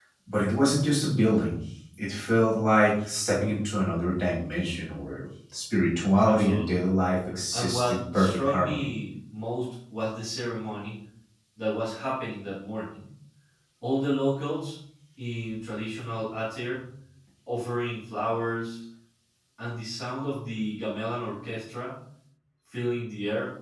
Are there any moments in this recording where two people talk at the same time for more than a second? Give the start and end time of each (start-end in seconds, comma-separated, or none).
7.5-8.8